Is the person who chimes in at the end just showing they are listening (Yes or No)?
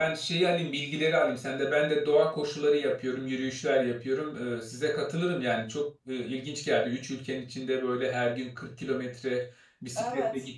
Yes